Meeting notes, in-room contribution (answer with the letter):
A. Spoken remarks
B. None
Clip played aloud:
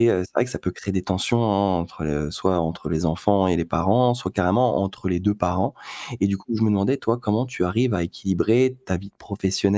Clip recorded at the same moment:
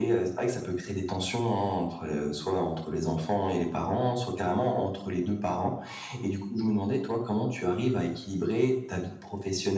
B